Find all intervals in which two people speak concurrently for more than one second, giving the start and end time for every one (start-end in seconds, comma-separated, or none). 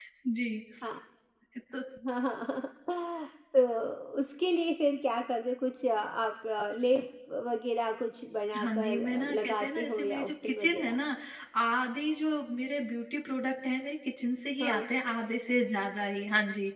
8.6-11.0